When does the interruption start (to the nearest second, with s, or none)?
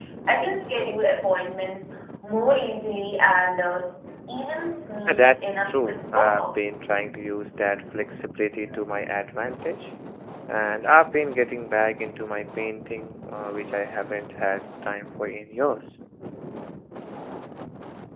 5 s